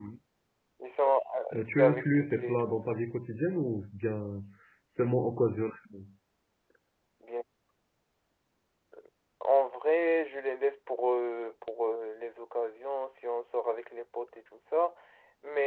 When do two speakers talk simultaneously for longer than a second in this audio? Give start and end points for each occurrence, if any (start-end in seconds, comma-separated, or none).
1.5-3.0